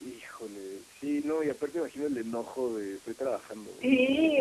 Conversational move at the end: taking over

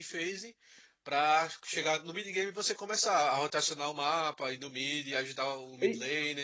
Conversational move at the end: taking over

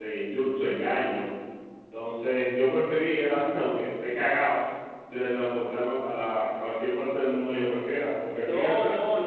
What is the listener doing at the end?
taking over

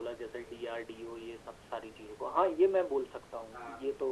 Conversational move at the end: listening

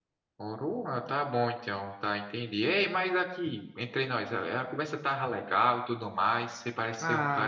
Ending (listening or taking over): listening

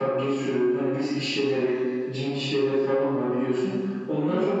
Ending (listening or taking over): listening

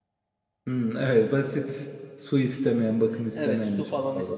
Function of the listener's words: taking over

